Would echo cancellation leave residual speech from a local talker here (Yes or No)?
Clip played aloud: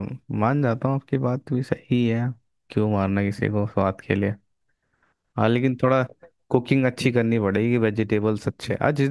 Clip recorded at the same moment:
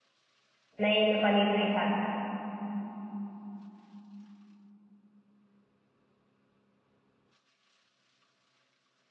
Yes